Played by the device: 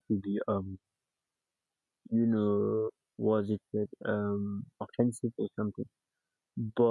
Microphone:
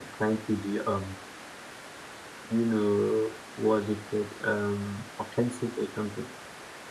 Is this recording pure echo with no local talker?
Yes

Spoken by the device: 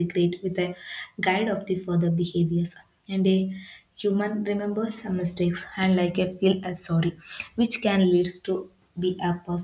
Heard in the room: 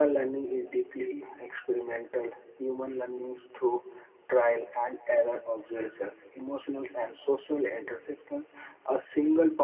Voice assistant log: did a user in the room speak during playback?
Yes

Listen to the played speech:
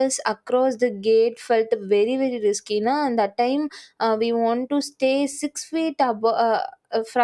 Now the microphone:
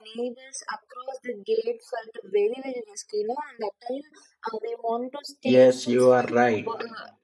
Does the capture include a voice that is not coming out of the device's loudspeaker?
Yes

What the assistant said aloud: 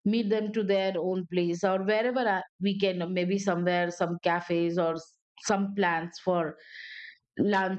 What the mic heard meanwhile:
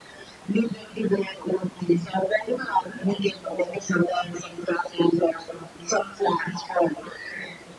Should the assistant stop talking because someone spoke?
No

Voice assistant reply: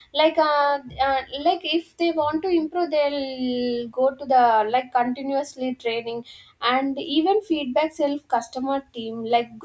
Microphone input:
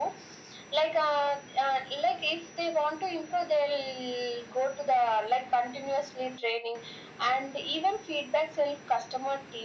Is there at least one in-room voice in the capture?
No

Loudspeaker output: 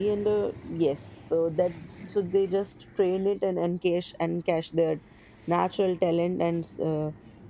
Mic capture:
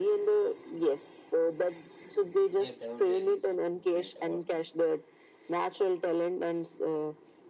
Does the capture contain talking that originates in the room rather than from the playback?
Yes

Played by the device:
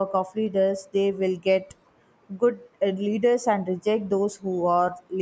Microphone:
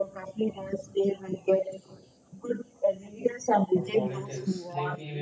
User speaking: Yes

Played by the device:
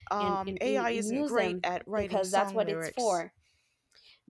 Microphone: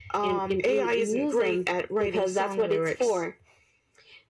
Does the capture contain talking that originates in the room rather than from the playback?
No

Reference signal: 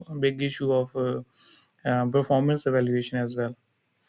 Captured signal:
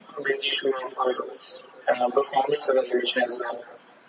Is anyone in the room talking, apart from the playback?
No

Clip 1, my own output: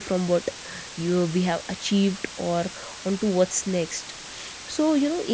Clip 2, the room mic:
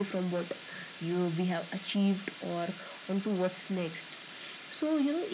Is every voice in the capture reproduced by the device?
Yes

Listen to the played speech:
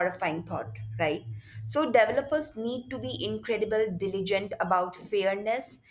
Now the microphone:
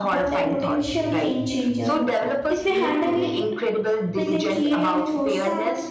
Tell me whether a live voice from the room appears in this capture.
Yes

